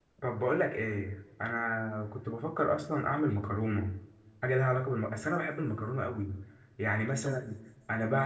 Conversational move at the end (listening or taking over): listening